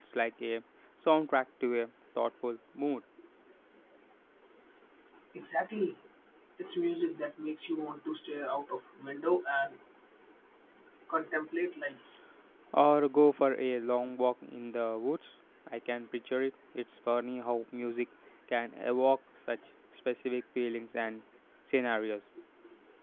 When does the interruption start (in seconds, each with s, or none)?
none